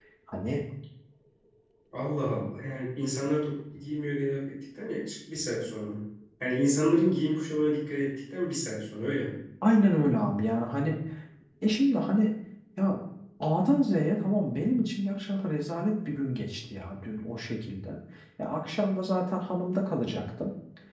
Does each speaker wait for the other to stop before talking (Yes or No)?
Yes